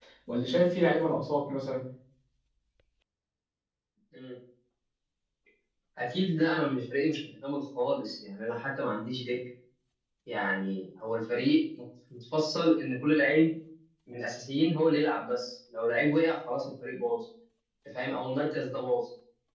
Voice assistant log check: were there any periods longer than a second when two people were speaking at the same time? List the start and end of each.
none

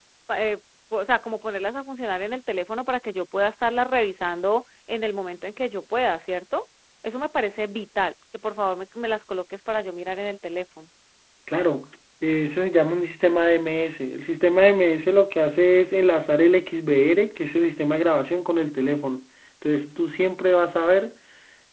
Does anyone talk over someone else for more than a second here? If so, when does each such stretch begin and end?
none

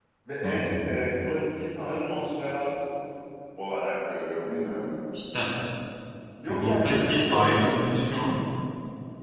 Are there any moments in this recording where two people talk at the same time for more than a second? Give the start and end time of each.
6.5-7.8

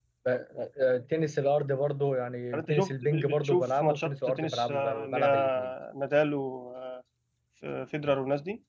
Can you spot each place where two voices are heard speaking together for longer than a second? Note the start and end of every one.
2.5-5.7

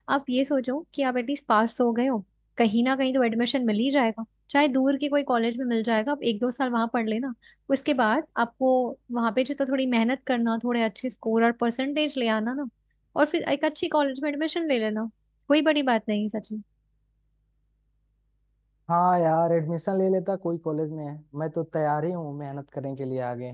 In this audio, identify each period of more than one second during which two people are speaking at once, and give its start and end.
none

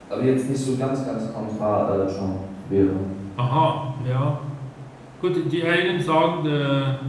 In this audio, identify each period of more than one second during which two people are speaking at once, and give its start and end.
none

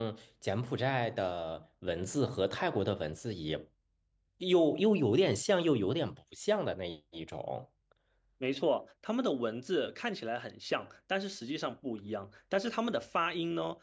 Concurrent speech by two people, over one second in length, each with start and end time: none

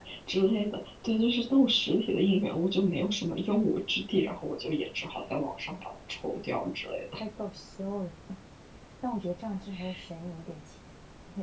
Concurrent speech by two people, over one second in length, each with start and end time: none

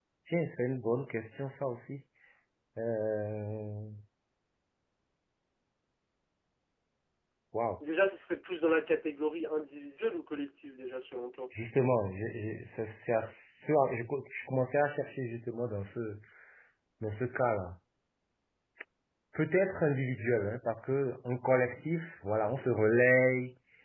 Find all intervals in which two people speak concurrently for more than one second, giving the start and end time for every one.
none

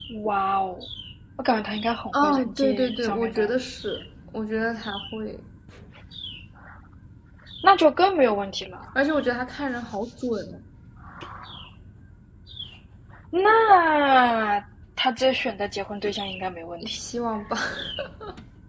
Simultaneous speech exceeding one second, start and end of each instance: 2.2-3.5

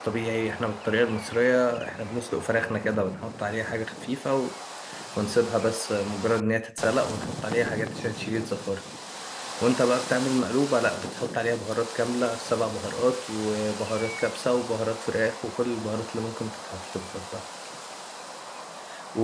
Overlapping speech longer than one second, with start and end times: none

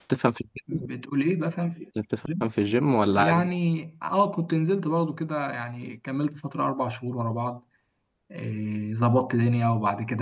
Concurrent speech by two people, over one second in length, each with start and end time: none

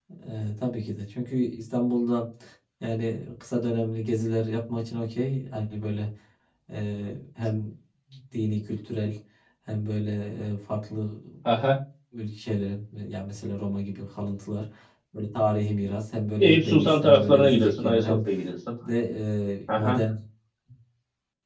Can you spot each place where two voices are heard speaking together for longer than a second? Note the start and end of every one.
16.4-18.2

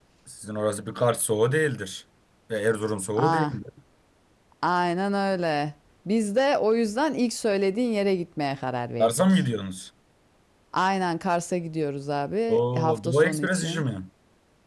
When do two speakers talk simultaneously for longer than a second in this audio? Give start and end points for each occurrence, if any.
12.5-13.8

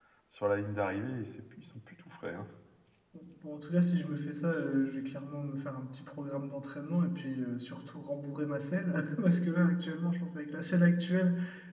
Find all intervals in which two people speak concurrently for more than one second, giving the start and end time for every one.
none

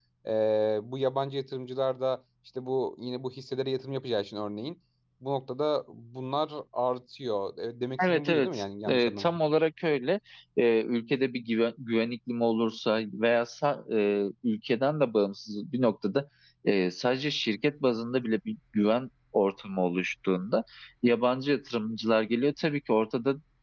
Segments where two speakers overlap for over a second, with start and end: 8.0-9.4

